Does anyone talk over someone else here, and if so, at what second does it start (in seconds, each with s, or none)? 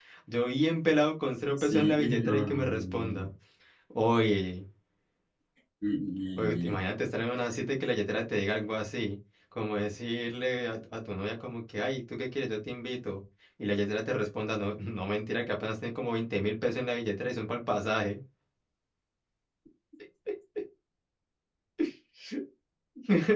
1.6 s